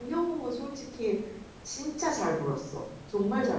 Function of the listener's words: taking over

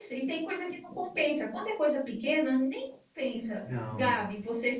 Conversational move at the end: listening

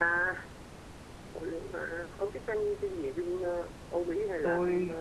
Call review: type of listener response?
taking over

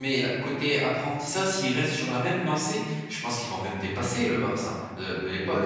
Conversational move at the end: taking over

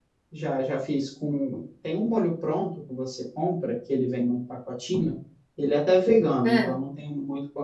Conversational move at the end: listening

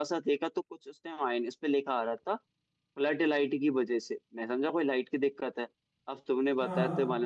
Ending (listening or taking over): listening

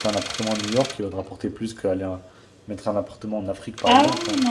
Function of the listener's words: taking over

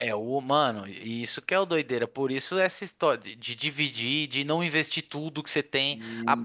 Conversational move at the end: listening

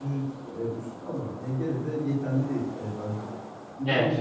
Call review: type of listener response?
listening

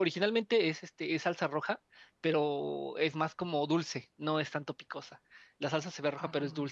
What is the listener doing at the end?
listening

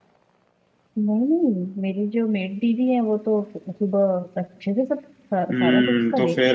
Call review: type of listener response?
taking over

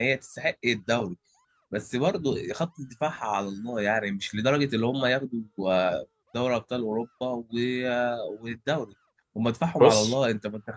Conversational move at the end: listening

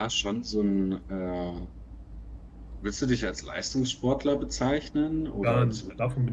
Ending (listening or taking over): taking over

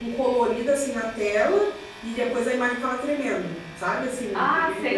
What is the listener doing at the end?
taking over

